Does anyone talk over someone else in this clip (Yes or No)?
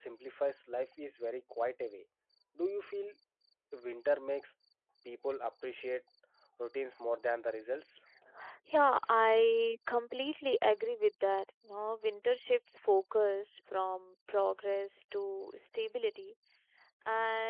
No